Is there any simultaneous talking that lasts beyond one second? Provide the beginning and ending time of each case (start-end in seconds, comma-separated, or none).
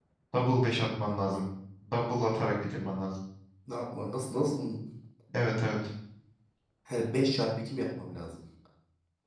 none